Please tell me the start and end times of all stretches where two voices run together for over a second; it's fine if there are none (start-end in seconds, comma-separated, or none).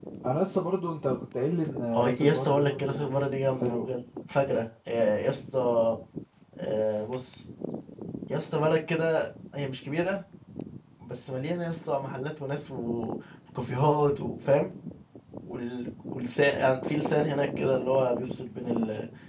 1.9-3.2